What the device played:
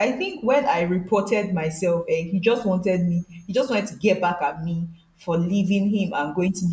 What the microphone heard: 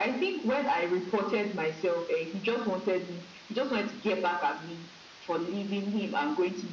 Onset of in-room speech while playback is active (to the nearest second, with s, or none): none